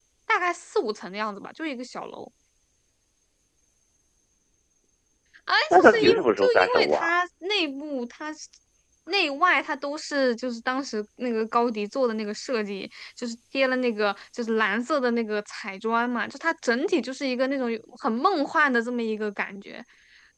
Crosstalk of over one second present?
Yes, from 5.7 s

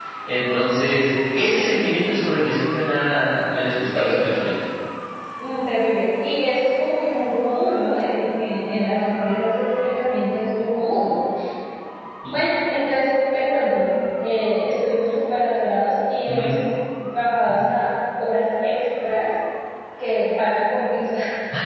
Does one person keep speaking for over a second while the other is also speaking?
No

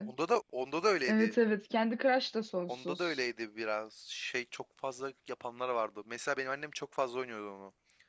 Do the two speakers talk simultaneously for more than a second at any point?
No

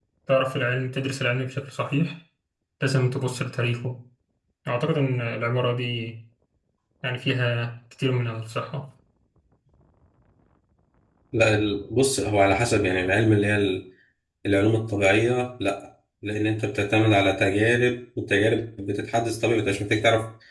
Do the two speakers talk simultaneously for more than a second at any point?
No

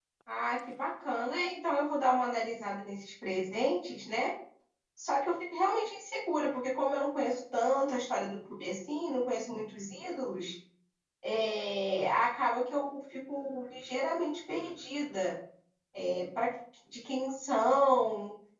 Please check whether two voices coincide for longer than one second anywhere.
No

